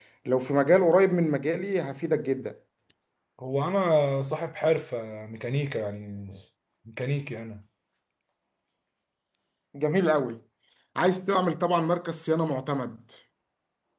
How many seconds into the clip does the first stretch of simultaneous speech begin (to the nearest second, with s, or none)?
none